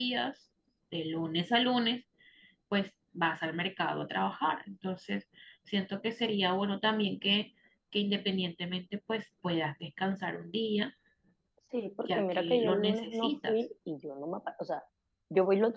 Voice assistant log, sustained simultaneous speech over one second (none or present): present